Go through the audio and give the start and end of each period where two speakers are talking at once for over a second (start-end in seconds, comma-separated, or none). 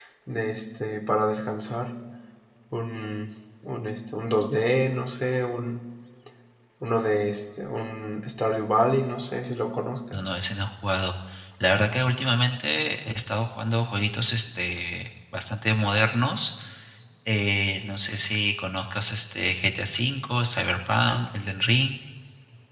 none